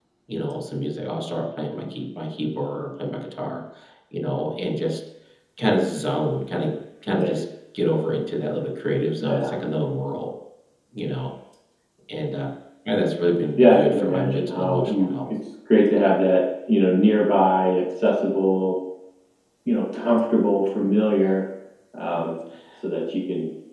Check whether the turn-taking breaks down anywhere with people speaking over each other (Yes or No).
Yes